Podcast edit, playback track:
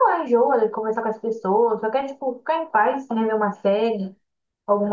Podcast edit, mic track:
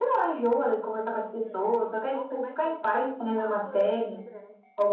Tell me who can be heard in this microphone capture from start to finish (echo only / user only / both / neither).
both